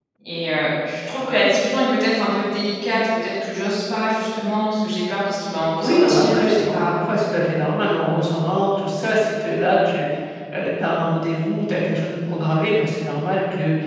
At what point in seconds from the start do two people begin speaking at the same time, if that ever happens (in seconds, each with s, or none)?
5.5 s